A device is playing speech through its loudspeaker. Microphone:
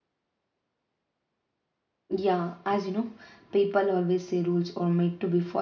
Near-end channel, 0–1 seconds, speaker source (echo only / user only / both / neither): neither